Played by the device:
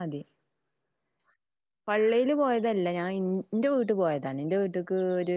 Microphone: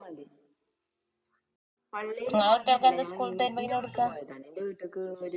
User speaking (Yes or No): Yes